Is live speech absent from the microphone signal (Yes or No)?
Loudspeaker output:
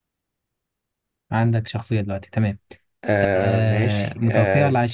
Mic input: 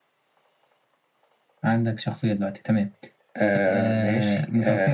Yes